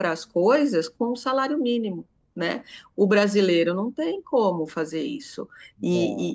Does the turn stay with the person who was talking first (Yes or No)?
Yes